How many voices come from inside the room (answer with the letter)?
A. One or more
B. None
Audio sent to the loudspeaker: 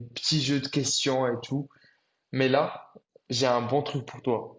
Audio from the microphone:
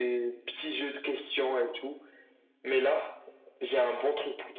B